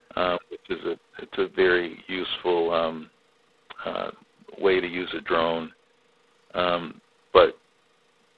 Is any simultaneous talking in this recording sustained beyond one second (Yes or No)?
No